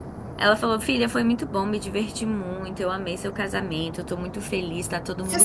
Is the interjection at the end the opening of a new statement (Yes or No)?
Yes